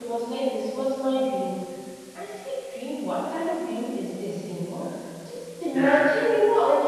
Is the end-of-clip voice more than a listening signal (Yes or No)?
No